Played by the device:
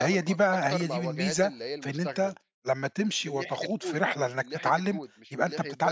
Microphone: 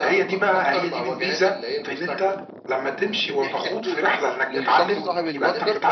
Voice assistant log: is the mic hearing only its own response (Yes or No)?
No